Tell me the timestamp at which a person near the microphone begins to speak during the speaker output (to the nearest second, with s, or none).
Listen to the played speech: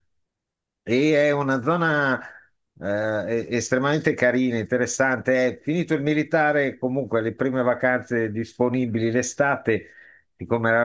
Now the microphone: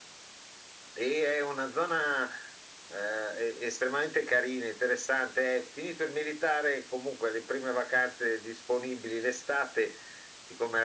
none